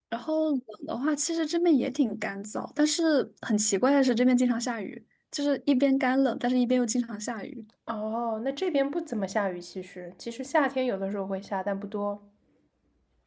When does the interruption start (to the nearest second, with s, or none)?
none